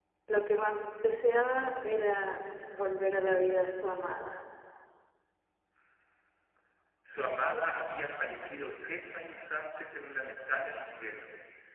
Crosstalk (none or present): none